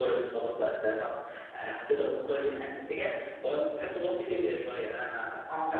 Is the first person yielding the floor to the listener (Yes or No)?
No